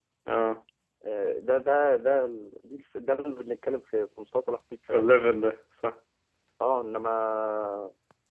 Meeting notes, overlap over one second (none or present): none